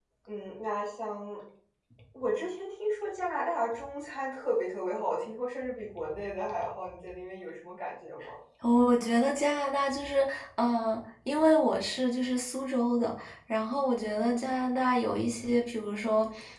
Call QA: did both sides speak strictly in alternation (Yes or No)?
Yes